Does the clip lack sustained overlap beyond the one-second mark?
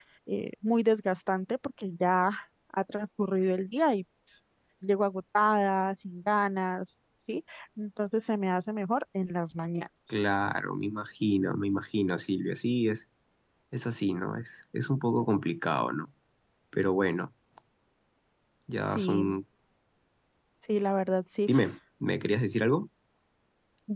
Yes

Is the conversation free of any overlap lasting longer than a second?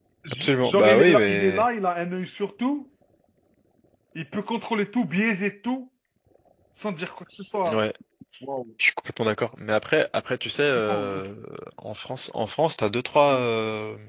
No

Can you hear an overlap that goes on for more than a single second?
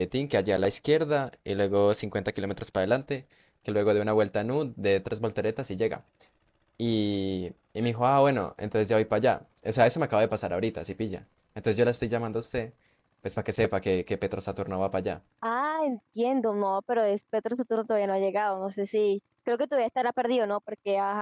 No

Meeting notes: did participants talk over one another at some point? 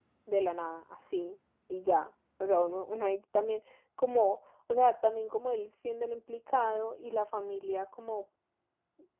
No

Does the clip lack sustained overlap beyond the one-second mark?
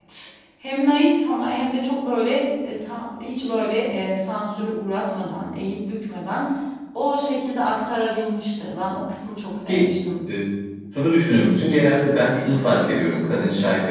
Yes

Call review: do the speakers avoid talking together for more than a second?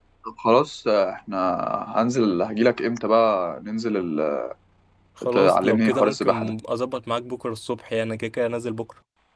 No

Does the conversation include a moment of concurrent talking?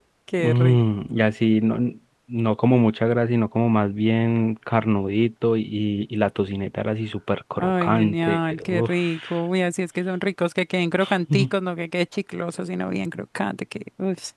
Yes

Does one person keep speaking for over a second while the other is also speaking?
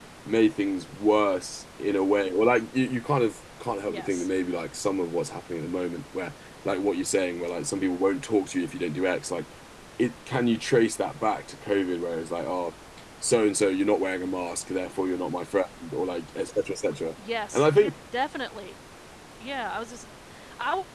No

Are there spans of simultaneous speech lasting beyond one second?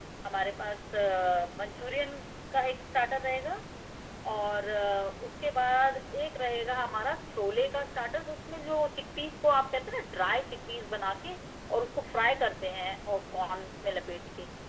No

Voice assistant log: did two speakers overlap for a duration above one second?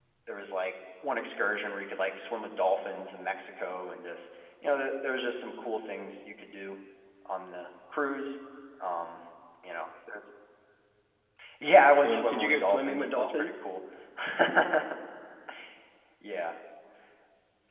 Yes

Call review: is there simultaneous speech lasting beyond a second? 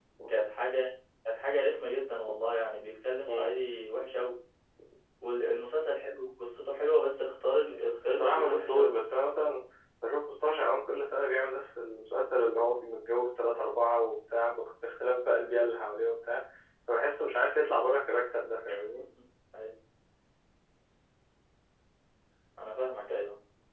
Yes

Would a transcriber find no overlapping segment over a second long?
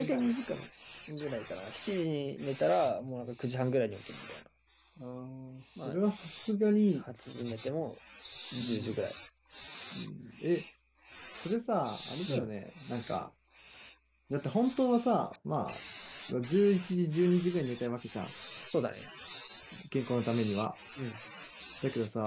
Yes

